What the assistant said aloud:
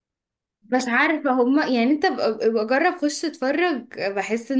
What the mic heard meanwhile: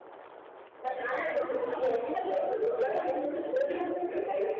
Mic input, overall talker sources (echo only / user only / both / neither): echo only